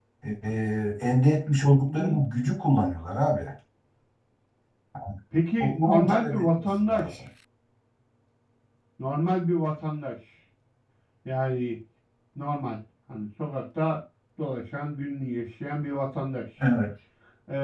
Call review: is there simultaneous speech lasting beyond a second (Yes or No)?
Yes